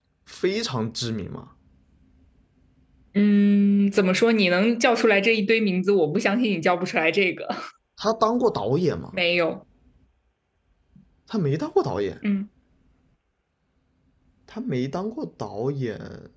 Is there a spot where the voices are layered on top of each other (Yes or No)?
No